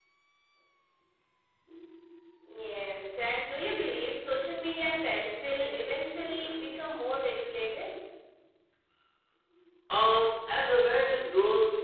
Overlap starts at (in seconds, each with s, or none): none